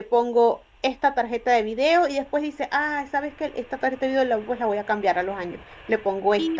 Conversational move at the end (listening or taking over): listening